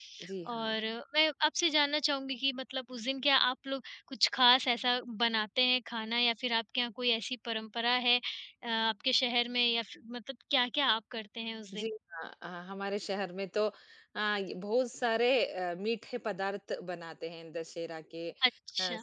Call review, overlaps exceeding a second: none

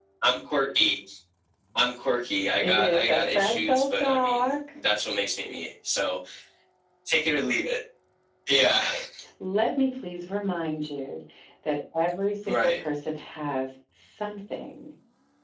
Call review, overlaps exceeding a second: present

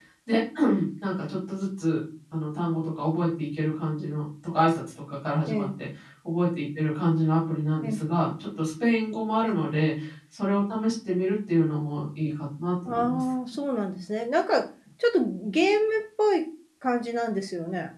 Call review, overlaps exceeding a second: none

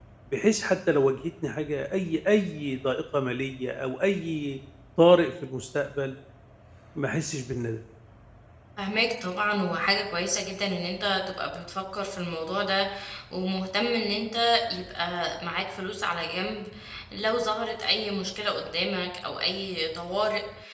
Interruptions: none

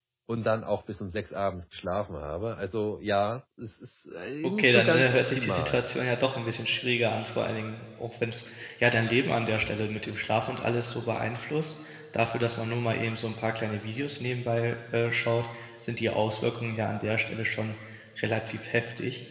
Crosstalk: present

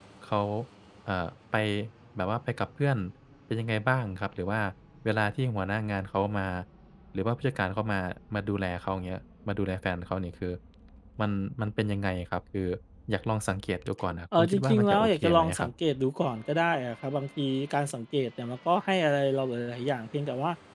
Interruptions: present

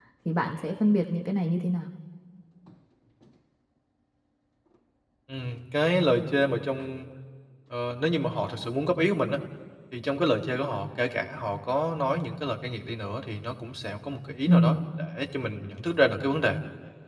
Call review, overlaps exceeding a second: none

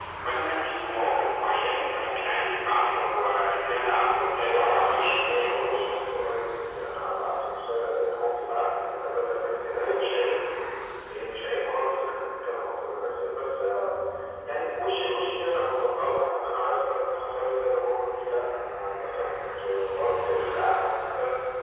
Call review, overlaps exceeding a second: present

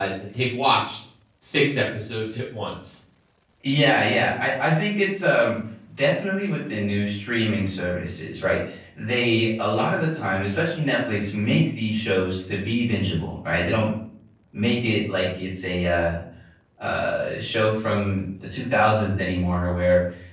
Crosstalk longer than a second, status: none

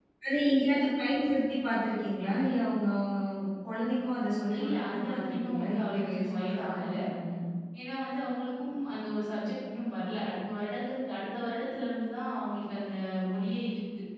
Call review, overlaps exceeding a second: present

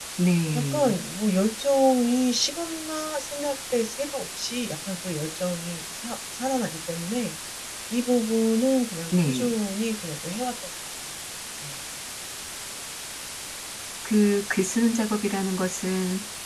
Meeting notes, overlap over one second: none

